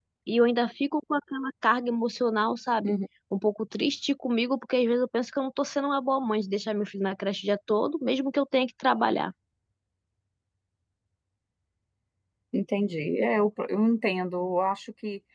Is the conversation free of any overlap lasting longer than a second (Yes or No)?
Yes